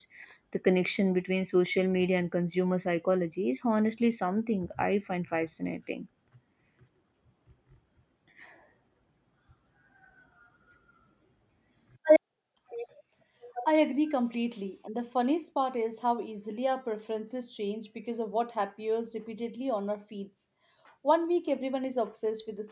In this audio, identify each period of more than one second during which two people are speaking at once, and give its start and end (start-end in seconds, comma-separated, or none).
none